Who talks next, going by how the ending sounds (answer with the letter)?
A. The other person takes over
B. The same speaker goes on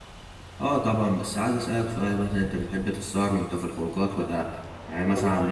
B